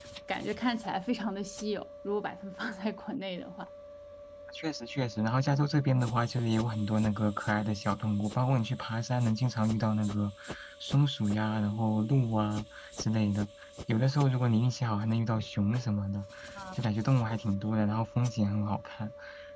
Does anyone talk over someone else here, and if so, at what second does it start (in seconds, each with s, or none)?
none